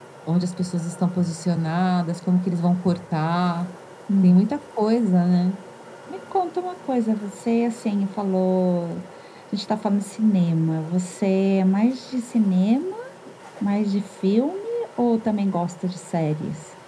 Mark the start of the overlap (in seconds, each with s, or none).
none